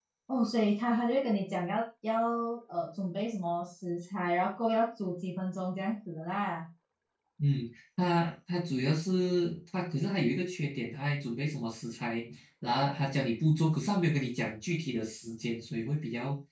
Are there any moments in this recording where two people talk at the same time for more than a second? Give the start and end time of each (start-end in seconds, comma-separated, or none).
none